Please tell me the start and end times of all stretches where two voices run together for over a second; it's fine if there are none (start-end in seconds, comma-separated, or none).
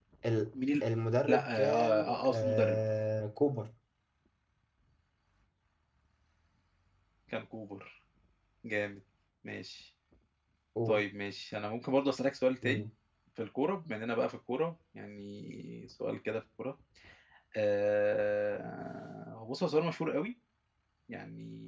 1.3-2.8